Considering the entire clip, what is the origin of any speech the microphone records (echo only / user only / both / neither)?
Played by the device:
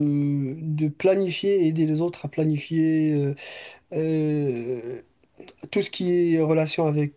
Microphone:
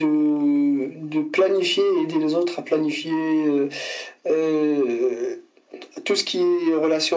echo only